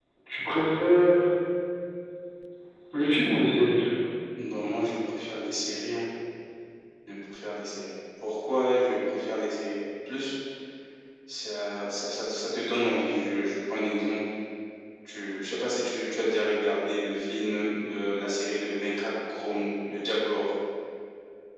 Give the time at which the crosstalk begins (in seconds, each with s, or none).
none